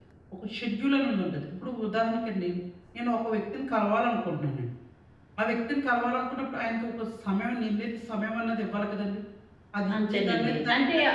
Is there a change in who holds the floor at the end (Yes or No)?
Yes